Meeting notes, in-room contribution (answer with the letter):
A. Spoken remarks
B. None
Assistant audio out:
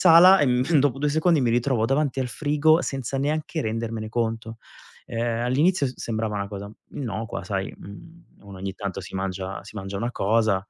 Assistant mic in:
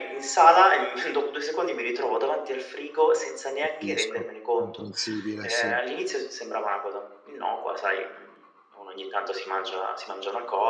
A